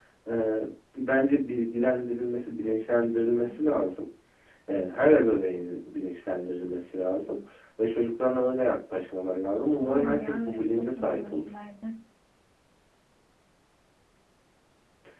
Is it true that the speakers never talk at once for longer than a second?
No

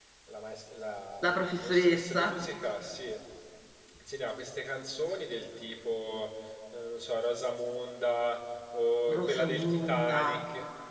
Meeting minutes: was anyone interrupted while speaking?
Yes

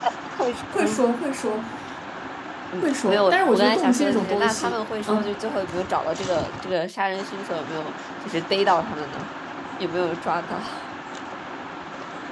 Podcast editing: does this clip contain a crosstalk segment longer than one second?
Yes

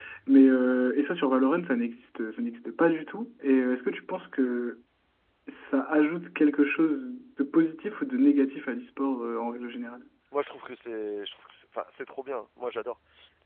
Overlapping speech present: No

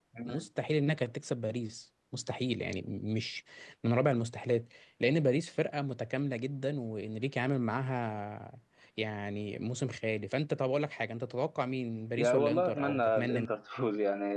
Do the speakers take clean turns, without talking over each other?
No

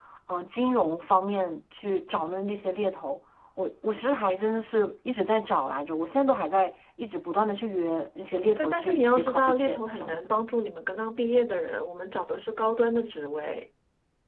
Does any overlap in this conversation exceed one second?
Yes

